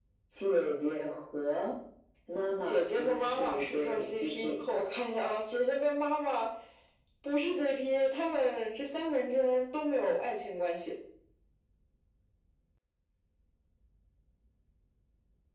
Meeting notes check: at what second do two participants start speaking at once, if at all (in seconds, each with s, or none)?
2.6 s